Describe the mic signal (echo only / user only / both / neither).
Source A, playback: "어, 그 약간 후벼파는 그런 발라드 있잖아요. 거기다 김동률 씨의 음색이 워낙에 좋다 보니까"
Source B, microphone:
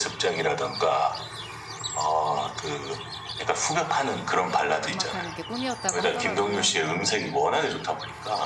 both